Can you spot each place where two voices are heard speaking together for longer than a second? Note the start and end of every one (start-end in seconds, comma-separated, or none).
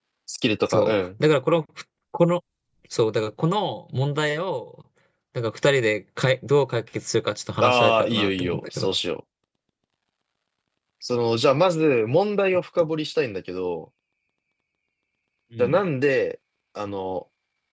7.6-8.9